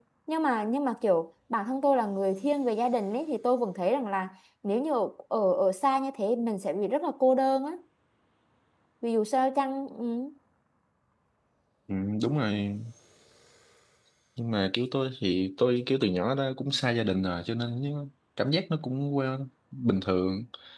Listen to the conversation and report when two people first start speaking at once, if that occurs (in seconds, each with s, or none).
none